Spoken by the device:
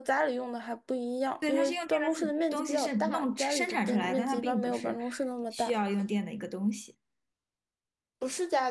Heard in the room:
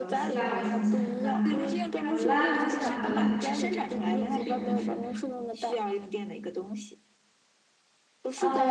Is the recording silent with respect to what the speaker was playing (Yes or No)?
No